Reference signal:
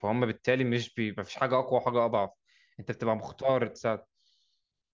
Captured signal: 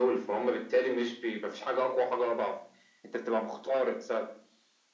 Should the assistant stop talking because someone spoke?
No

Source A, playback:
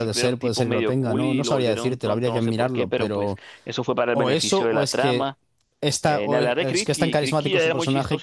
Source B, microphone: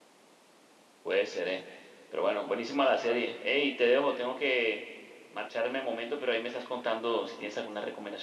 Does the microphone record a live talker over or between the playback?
Yes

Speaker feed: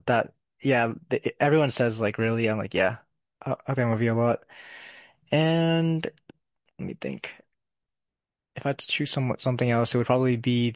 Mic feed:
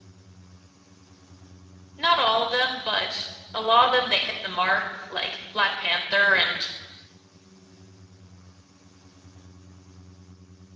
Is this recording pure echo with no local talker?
No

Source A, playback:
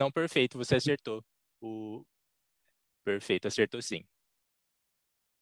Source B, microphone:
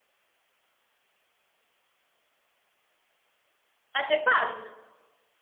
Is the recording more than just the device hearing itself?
Yes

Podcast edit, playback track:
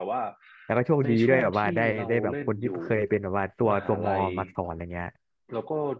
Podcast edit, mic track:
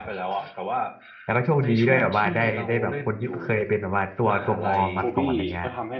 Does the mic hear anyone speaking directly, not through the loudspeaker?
Yes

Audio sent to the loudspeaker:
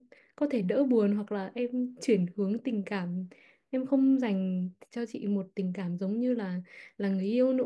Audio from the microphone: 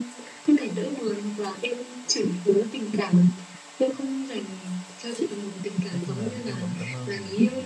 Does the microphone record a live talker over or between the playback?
Yes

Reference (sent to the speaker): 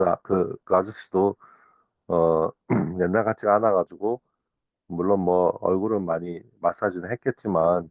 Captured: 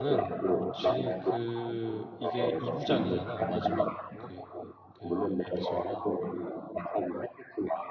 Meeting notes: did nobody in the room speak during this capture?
No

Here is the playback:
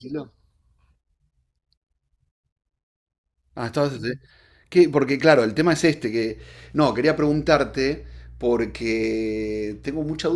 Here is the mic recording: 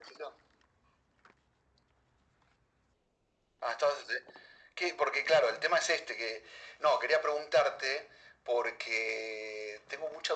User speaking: No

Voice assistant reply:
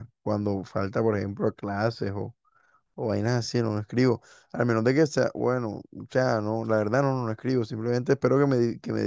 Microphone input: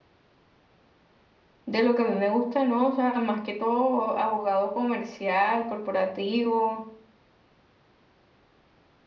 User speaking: Yes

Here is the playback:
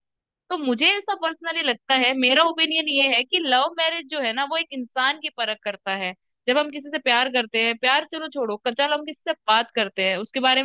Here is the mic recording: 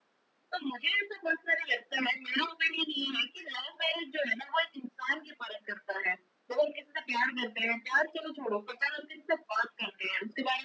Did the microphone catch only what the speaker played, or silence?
Yes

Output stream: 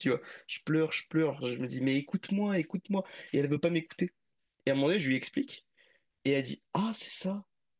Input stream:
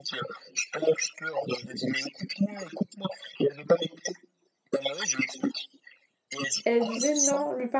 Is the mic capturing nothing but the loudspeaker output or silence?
No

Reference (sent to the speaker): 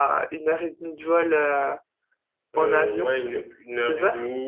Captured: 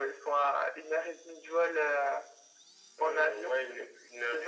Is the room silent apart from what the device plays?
Yes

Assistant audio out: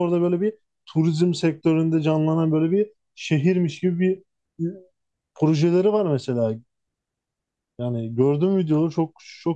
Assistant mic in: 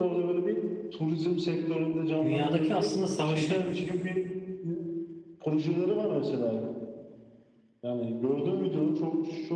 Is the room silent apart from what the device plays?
No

